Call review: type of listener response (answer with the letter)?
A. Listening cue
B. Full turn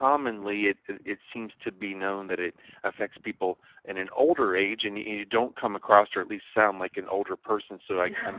A